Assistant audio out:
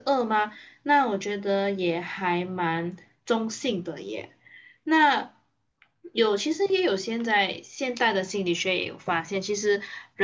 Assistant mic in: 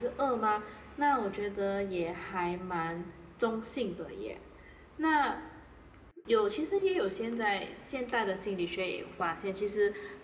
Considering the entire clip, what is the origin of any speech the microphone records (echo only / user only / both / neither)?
echo only